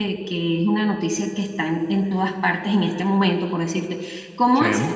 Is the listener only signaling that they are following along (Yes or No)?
Yes